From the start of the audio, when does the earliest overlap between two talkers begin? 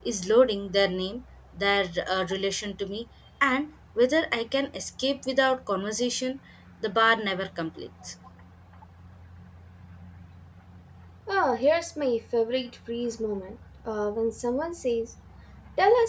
none

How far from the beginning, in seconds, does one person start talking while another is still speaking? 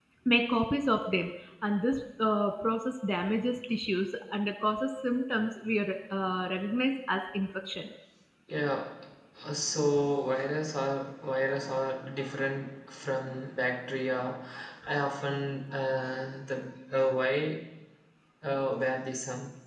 none

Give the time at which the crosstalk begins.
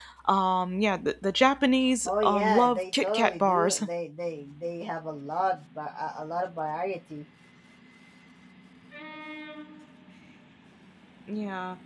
2 s

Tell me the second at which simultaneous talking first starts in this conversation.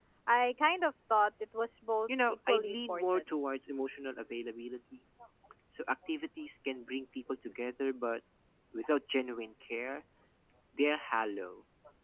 2 s

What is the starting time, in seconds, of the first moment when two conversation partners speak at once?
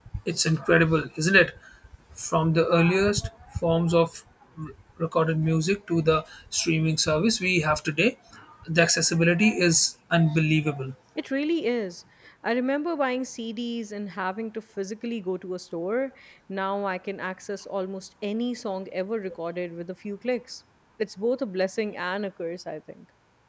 none

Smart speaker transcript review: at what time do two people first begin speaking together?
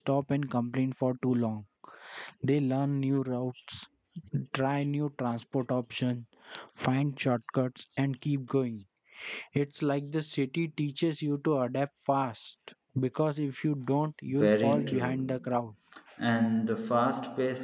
14 s

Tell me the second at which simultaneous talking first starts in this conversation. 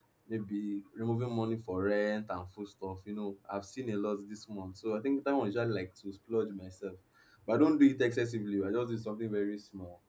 none

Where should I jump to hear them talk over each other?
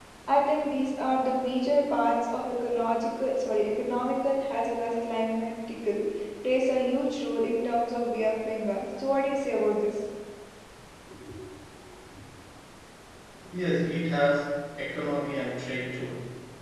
none

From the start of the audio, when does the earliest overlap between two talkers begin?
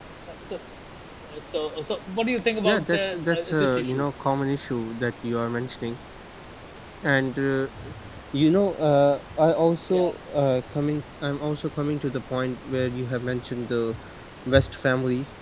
3 s

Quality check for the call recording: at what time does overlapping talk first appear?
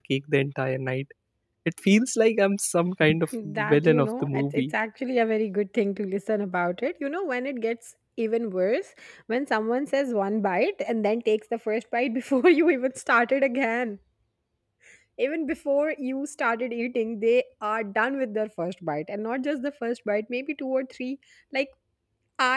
3 s

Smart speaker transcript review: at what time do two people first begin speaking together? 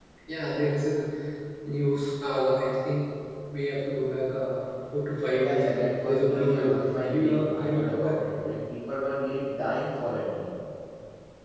5 s

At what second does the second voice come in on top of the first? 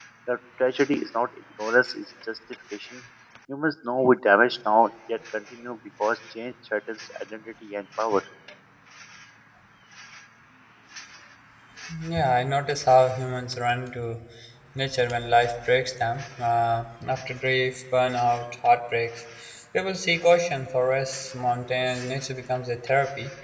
none

